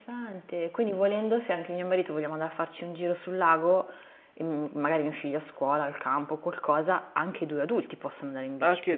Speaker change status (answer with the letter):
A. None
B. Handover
B